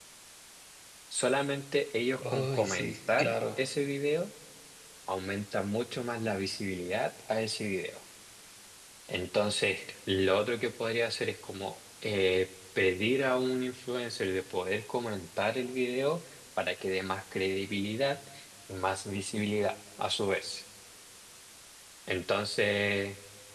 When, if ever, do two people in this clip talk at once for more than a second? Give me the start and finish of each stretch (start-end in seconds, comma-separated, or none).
2.2-3.6